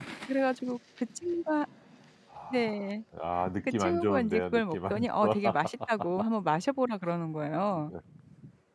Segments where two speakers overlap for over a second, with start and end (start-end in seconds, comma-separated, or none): 3.8-5.4